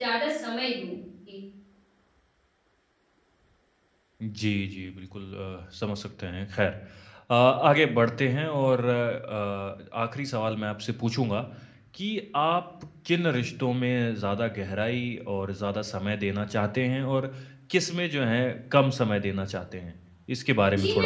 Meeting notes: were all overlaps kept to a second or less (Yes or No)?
Yes